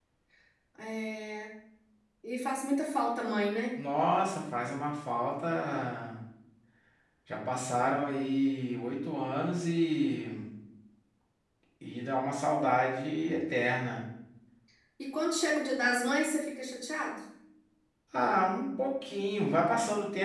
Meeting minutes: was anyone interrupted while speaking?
No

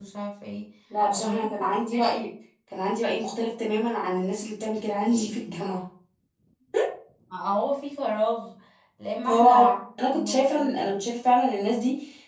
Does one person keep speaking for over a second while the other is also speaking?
Yes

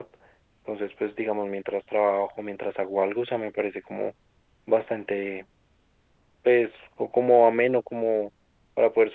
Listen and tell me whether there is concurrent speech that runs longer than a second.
No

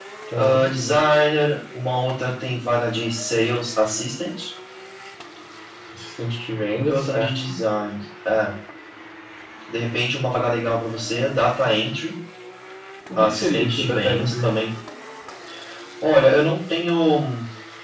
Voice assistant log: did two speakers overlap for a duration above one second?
Yes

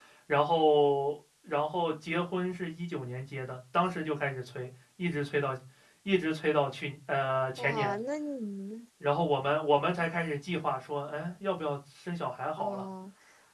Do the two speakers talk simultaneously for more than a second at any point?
No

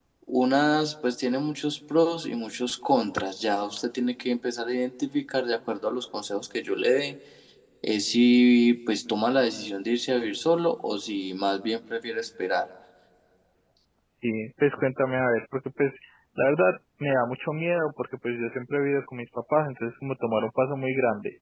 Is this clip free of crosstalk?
Yes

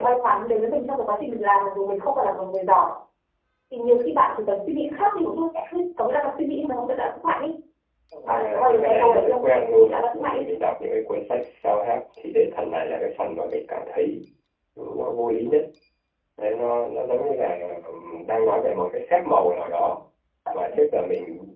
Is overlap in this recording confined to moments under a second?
No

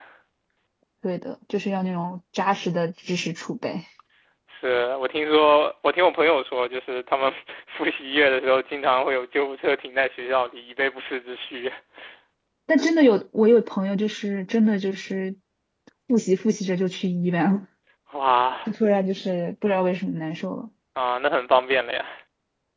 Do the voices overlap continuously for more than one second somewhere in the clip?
No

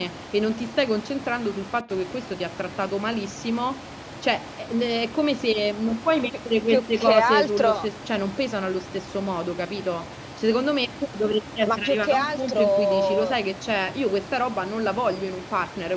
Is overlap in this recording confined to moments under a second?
No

